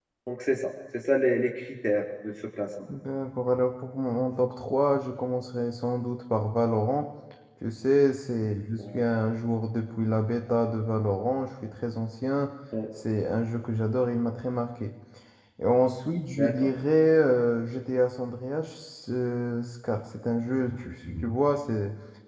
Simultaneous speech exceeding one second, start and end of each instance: none

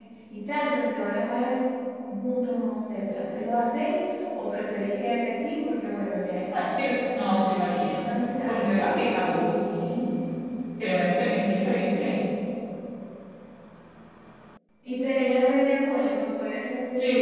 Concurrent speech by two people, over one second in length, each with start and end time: 6.5-7.9

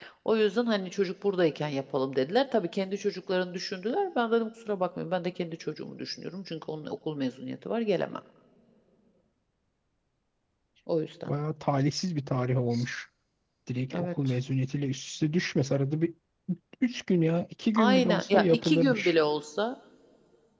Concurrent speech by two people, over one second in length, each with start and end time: 17.8-19.1

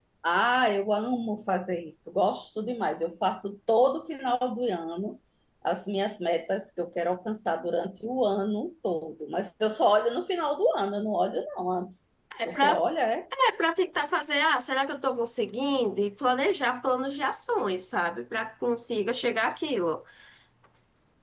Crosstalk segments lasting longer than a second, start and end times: none

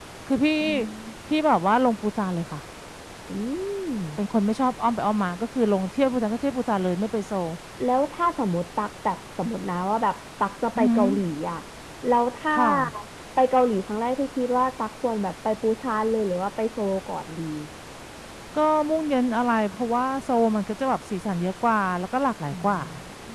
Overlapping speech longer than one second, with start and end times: none

